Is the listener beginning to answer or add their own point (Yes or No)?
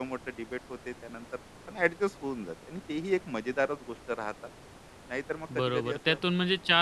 Yes